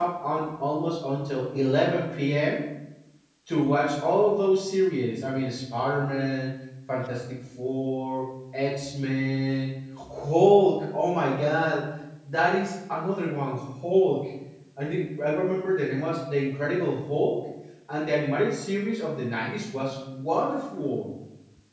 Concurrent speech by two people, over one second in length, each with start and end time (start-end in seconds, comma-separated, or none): none